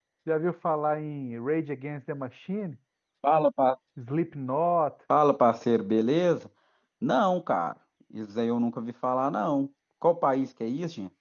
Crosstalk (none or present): none